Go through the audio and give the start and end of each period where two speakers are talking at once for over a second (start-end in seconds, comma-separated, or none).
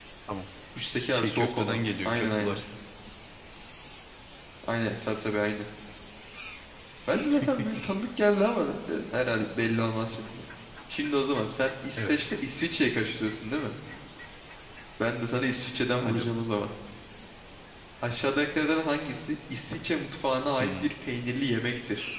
1.1-2.6